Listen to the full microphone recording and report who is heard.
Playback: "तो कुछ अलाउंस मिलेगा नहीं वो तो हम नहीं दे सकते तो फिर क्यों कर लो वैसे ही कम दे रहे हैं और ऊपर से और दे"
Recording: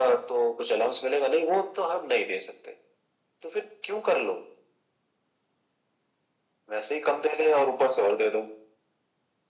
echo only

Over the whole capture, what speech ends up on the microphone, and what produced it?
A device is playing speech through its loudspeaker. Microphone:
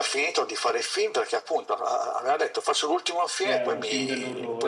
both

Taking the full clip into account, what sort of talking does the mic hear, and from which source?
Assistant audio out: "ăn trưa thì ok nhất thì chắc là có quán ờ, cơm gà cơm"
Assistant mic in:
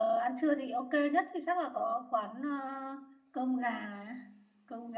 echo only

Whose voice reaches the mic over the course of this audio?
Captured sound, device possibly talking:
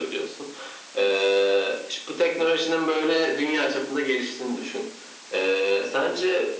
echo only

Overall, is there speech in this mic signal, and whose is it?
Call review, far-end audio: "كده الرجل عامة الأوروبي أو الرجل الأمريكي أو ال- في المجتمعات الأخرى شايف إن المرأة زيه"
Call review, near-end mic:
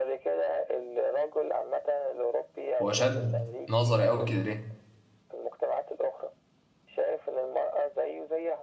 both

